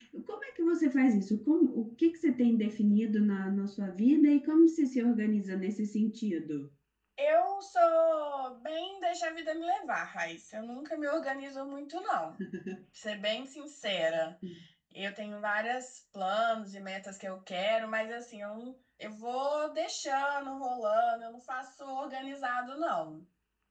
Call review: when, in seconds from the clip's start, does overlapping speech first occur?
none

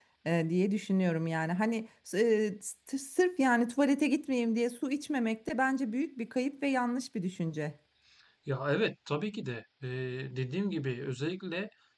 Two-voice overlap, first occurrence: none

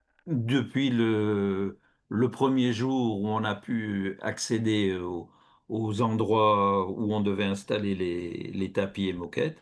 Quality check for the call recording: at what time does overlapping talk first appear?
none

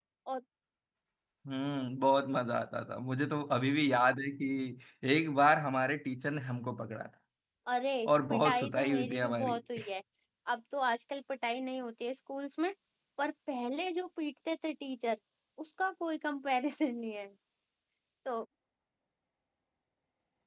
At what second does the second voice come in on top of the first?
8.3 s

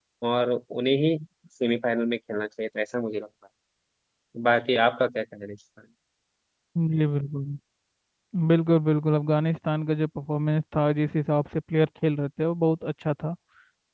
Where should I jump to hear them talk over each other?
none

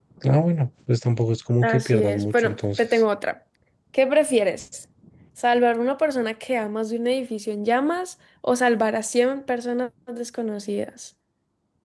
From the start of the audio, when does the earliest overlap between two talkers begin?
1.6 s

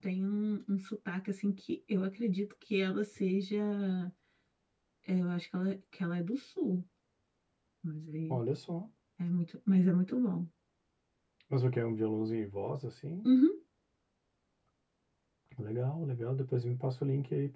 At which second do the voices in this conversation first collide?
none

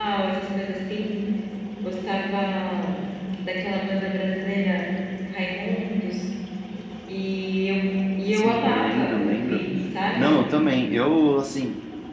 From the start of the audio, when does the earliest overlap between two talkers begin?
8.3 s

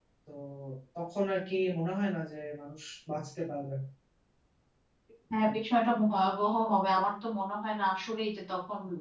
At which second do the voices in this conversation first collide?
none

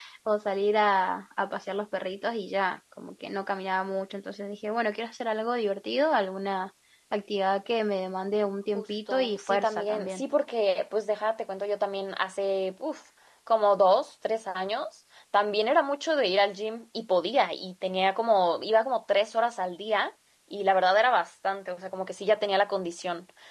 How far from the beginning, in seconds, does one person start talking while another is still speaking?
8.7 s

